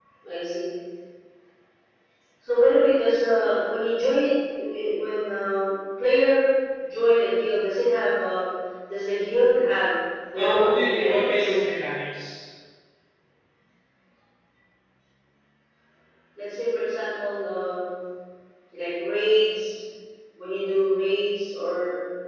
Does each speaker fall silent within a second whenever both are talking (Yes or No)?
No